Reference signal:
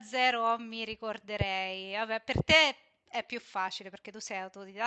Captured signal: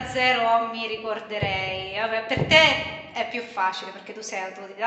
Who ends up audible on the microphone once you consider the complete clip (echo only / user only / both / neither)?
echo only